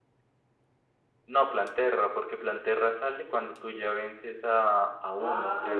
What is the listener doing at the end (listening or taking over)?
taking over